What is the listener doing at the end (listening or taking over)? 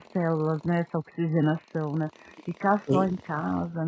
listening